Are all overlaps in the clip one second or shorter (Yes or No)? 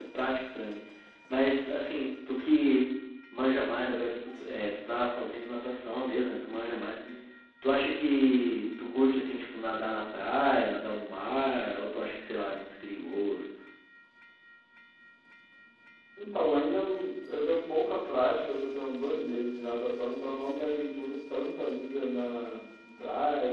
Yes